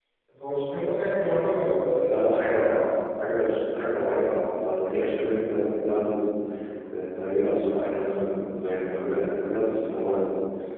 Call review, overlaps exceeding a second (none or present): none